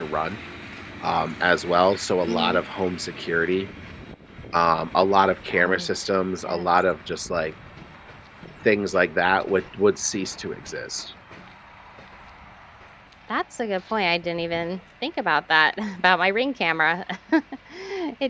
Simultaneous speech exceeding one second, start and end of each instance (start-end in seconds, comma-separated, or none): none